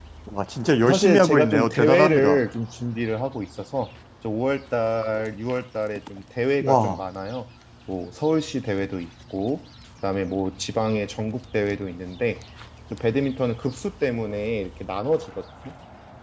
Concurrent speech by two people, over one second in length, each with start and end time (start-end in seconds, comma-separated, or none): 0.9-2.4